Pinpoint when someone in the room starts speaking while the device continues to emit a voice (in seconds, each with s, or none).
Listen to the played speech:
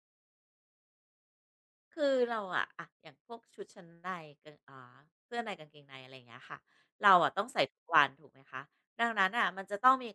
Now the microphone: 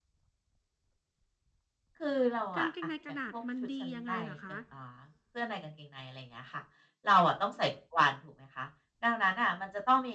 2.5 s